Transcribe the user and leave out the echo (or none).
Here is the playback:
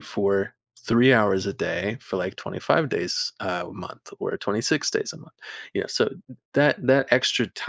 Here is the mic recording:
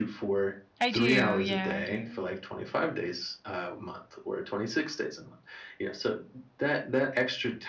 I do, yeah, I do.